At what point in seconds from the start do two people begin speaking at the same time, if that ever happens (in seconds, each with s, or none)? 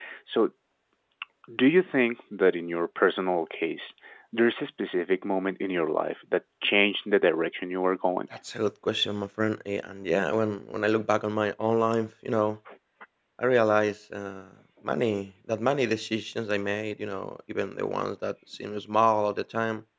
none